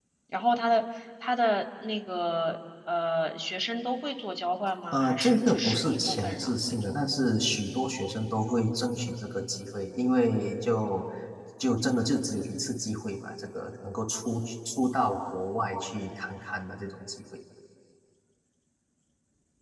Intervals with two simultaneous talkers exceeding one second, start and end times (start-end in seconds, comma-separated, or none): 4.9-7.0